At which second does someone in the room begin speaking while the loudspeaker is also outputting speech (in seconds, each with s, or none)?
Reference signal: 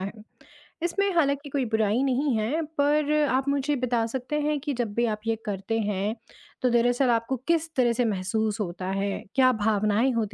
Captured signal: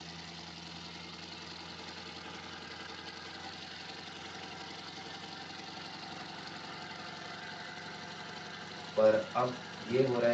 9.0 s